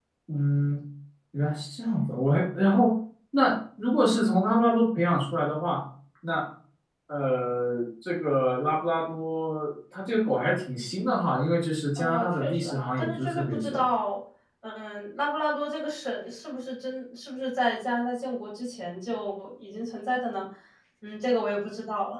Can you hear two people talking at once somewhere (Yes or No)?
Yes